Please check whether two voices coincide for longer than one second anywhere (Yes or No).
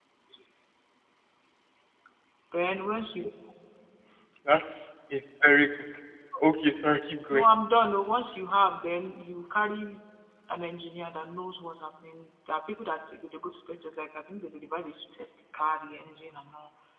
No